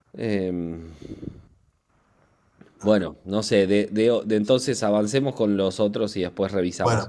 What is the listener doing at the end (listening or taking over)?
taking over